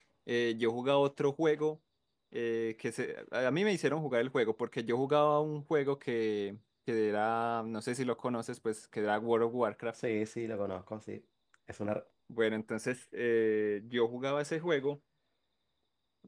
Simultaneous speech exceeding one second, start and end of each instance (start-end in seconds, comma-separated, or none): none